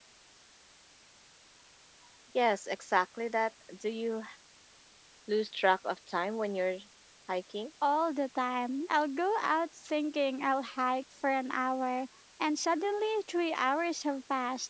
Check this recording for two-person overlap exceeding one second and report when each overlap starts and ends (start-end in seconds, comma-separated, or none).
none